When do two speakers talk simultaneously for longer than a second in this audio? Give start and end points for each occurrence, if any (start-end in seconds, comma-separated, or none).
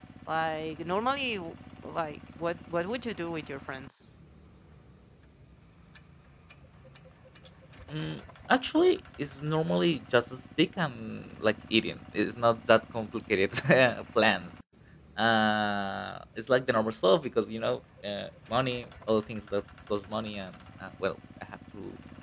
none